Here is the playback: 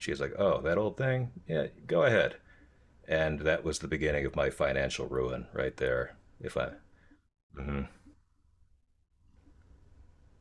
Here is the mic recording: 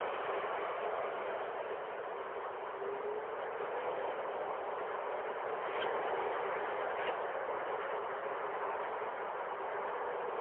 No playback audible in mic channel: Yes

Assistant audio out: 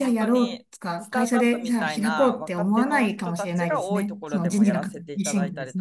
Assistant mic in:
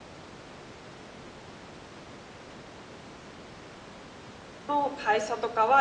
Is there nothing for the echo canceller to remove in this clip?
Yes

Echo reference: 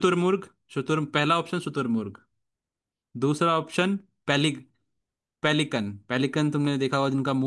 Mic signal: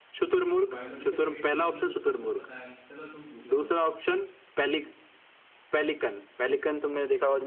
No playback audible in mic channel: No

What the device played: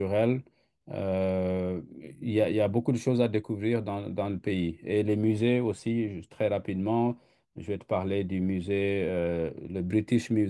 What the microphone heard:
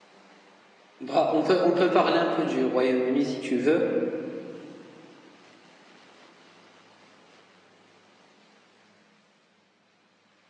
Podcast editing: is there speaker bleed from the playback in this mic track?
No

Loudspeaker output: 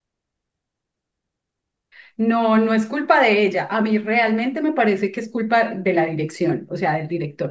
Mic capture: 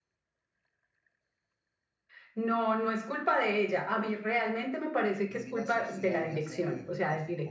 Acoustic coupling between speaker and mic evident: Yes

